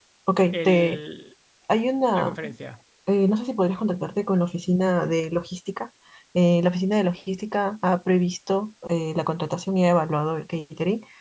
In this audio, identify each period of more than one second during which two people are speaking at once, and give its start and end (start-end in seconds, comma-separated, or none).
none